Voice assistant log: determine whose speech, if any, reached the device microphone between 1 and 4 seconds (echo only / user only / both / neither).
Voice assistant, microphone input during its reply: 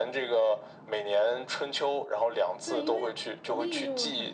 both